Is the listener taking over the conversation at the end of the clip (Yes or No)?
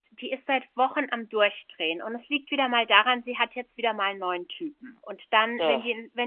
No